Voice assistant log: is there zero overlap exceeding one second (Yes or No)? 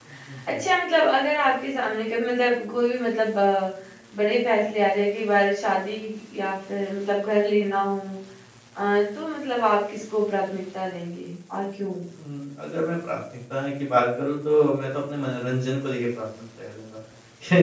Yes